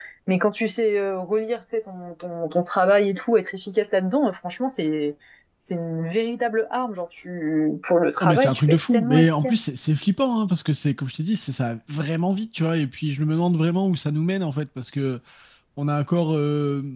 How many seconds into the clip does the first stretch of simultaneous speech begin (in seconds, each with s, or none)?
8.2 s